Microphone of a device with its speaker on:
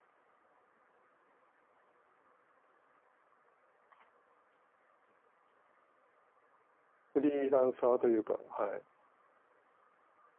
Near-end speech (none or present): present